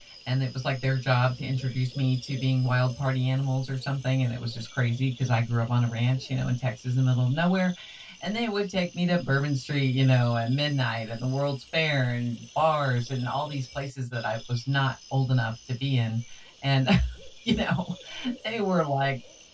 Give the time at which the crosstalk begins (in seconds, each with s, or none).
none